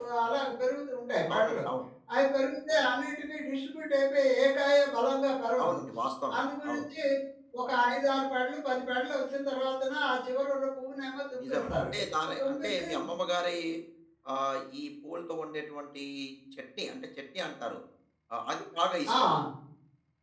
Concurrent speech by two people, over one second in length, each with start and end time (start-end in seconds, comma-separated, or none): none